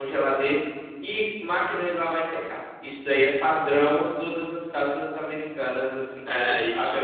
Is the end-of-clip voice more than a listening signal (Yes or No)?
Yes